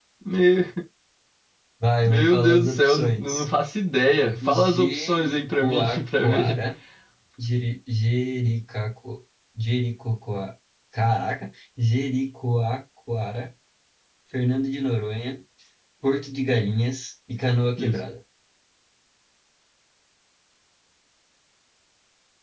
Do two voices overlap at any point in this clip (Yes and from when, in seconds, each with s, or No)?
Yes, from 2.0 s